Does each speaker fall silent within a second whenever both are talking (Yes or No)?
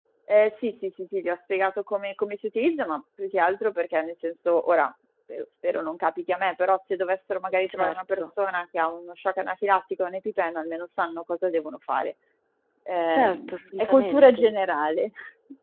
No